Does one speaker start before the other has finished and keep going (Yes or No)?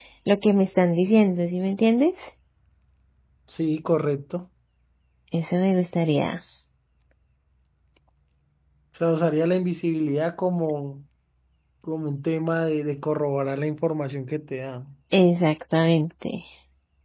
No